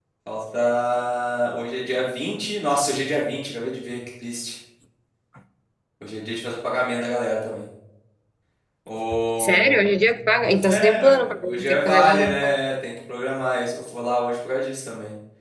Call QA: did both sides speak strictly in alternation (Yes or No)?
No